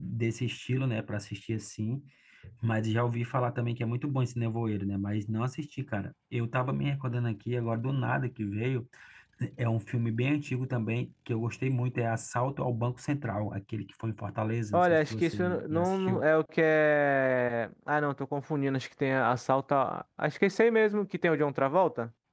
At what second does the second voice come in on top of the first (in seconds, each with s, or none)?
14.7 s